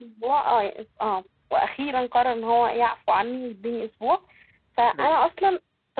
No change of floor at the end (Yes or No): Yes